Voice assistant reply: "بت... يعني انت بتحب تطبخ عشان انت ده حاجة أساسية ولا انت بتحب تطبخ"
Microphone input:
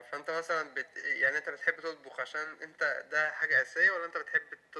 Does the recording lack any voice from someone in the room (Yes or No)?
Yes